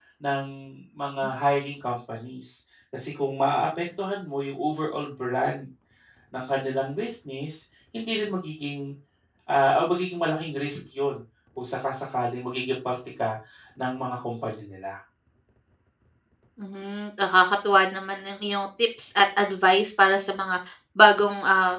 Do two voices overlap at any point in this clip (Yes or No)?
No